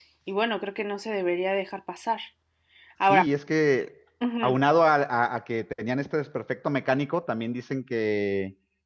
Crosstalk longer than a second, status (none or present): none